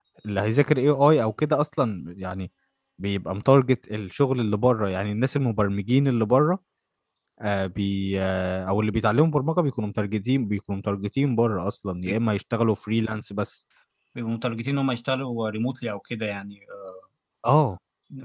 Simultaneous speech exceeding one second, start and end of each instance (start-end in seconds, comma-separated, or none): none